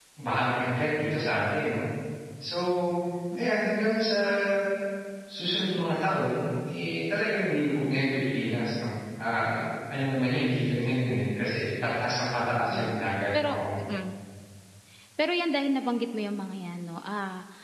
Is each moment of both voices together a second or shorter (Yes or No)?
Yes